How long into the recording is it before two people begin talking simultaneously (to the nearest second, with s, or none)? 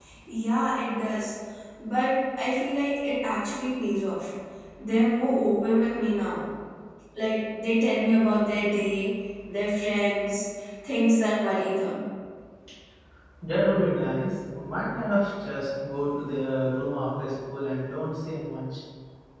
none